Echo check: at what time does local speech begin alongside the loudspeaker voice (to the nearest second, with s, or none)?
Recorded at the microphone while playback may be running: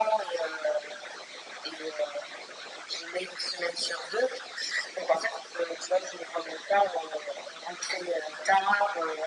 none